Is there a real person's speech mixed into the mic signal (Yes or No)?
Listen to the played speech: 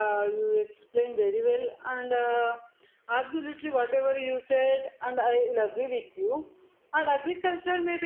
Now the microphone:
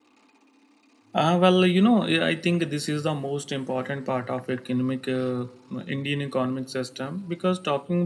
Yes